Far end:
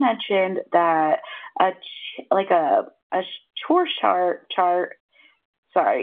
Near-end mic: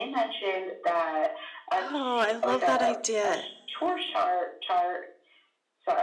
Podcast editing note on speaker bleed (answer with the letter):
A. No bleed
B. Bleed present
B